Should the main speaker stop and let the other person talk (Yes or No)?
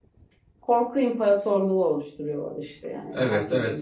Yes